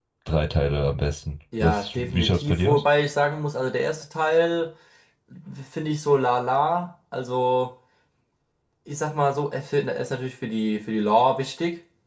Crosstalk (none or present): present